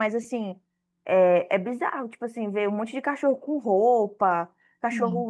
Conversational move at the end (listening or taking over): listening